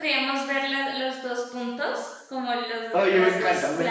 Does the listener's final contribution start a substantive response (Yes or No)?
Yes